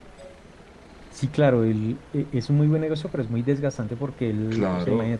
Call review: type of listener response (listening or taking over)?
listening